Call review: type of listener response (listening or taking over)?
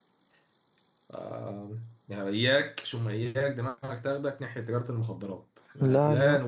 listening